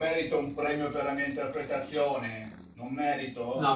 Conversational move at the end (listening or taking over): taking over